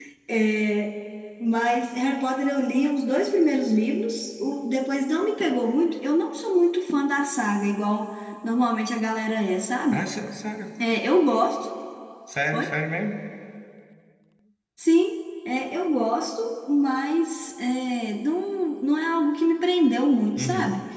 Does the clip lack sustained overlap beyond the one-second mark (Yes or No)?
Yes